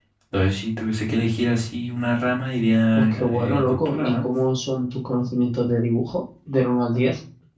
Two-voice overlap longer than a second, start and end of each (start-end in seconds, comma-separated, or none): 3.0-4.3